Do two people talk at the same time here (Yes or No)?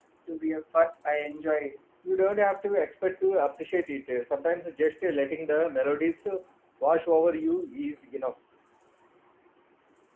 No